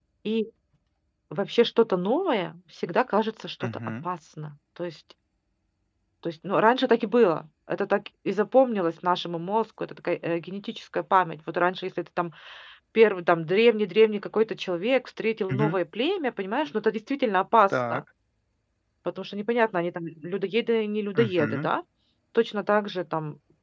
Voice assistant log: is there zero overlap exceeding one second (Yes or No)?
Yes